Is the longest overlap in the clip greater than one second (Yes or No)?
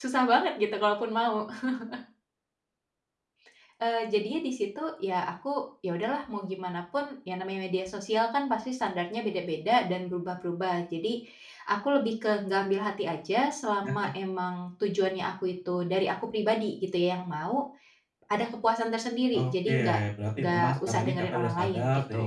Yes